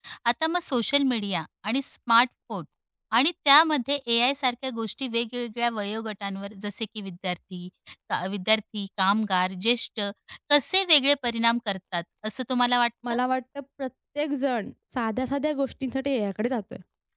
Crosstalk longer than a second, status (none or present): none